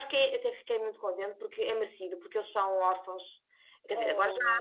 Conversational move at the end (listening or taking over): listening